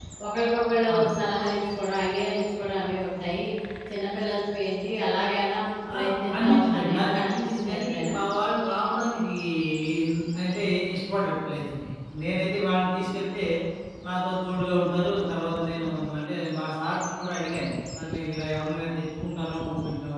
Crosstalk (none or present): present